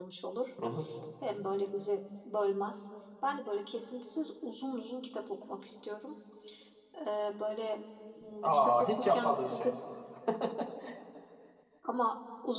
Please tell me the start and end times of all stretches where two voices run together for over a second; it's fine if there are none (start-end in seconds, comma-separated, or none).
8.4-9.7